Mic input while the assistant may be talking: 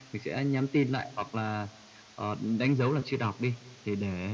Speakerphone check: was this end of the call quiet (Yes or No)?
Yes